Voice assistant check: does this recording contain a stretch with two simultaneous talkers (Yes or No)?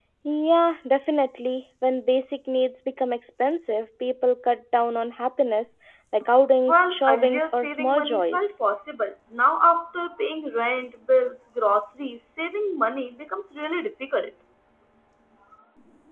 Yes